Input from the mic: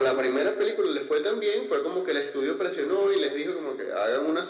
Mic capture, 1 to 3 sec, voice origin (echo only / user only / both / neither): echo only